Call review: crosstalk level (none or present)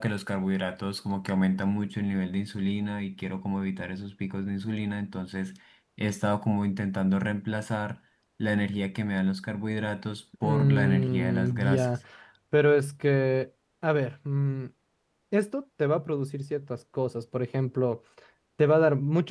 present